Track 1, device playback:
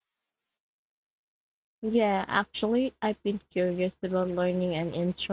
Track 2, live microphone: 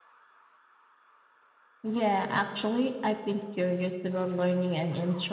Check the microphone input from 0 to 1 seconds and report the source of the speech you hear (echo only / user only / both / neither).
neither